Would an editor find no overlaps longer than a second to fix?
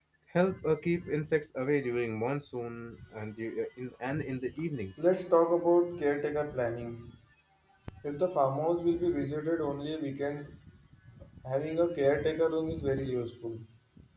Yes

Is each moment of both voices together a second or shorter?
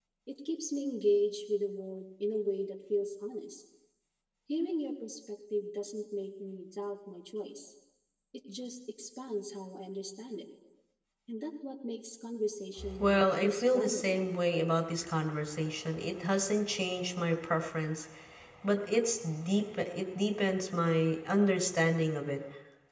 No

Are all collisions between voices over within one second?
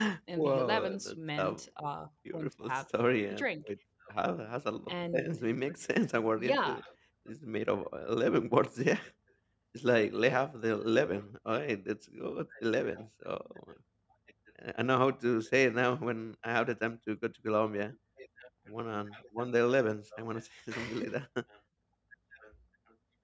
No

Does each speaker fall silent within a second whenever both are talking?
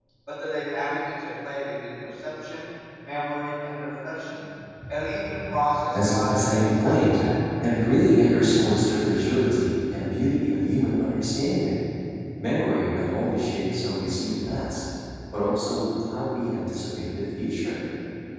No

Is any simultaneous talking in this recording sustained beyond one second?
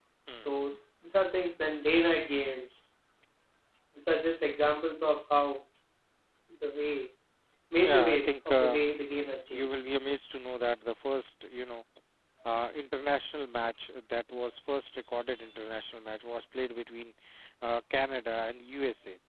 Yes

